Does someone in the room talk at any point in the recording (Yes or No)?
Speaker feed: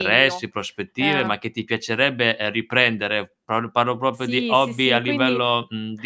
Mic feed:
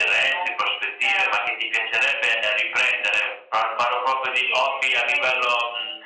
No